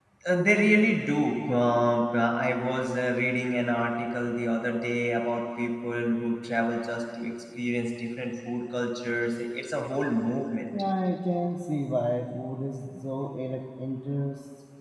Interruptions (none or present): none